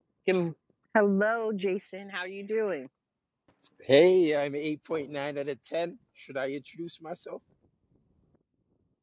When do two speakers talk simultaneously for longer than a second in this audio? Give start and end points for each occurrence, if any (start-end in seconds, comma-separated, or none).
none